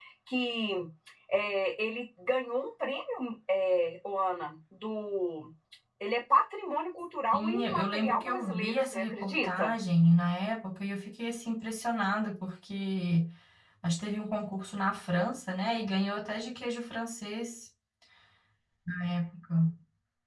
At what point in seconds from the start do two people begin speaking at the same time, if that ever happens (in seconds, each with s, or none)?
7.3 s